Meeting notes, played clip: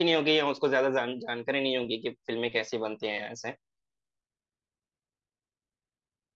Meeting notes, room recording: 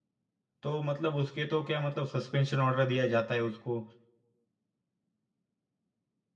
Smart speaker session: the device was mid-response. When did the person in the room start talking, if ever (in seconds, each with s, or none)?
0.6 s